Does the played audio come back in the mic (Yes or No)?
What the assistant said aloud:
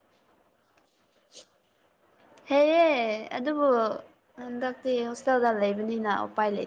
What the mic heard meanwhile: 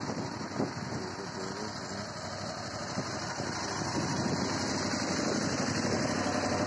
No